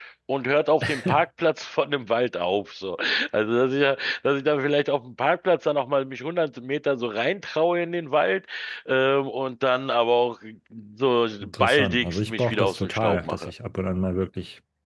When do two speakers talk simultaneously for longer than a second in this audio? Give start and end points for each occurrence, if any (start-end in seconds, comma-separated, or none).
11.4-13.5